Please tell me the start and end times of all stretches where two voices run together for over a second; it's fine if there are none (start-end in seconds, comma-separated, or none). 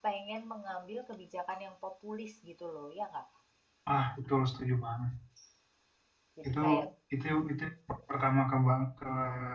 none